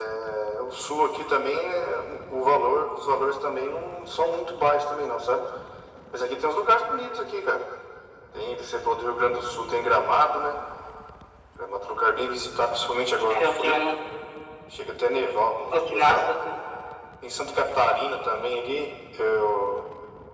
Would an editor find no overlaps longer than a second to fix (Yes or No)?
Yes